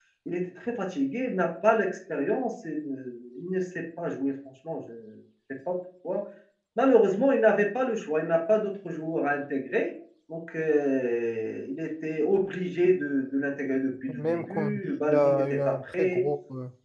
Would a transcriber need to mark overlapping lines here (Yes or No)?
Yes